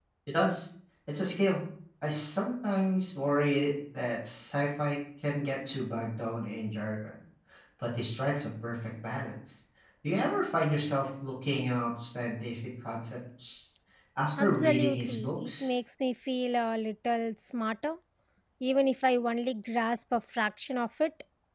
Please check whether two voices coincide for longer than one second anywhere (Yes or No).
Yes